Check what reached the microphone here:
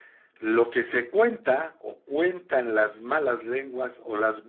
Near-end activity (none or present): none